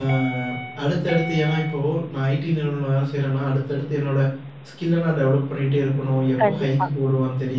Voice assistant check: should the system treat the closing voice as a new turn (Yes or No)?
No